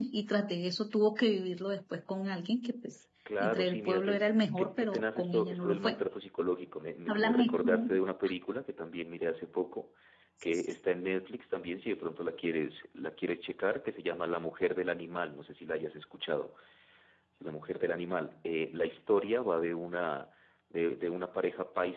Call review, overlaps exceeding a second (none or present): present